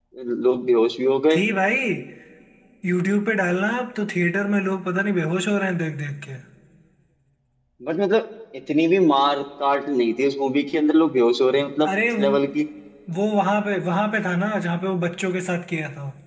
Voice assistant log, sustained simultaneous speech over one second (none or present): none